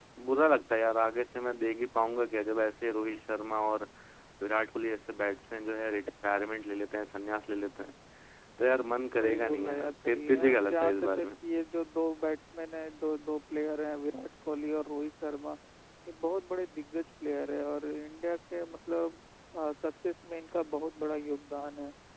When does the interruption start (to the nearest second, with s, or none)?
9 s